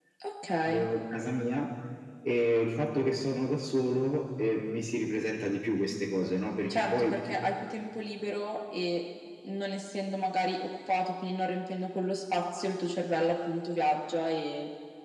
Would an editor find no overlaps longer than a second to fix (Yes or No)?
Yes